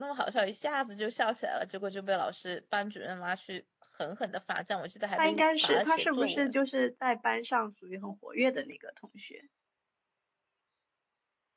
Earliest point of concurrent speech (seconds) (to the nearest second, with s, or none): 5 s